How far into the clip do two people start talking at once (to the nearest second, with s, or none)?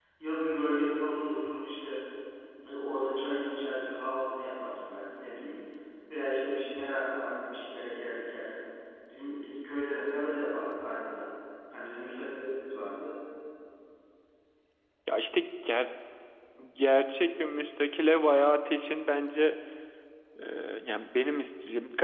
none